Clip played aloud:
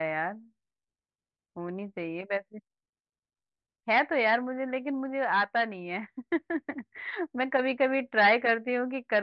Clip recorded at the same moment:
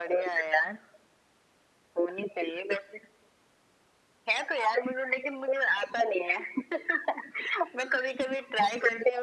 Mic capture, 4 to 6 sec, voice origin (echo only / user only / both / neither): echo only